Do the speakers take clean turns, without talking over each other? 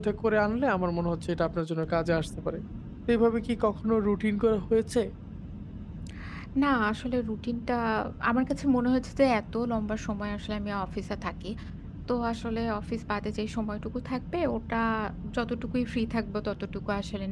Yes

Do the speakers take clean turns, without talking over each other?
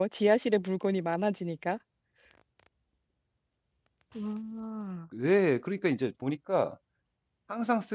Yes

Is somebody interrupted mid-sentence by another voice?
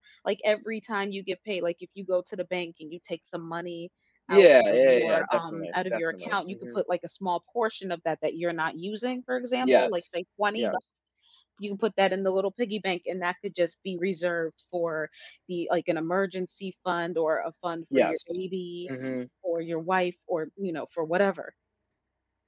Yes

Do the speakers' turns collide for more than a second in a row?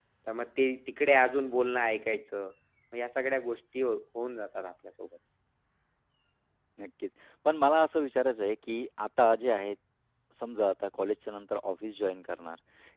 No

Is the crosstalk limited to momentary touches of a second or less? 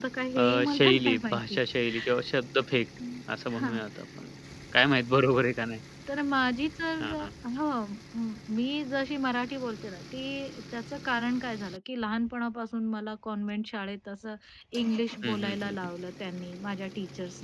No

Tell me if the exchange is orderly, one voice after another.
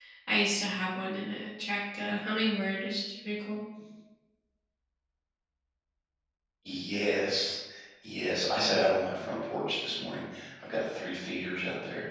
Yes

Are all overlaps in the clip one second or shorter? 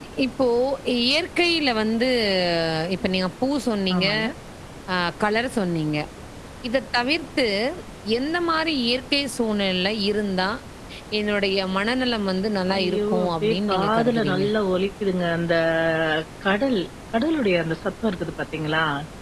No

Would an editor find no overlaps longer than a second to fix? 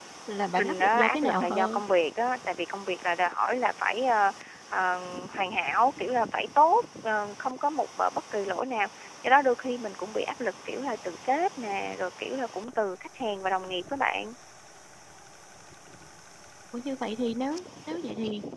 No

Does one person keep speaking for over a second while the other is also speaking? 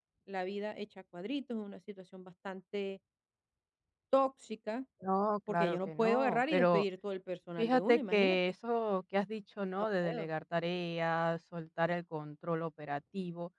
Yes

